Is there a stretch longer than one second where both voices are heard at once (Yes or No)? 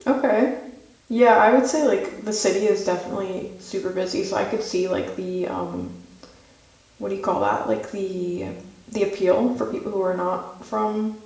No